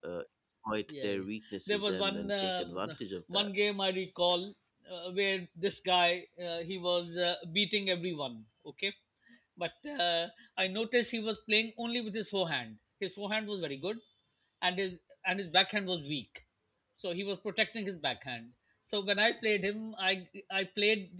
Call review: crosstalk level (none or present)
present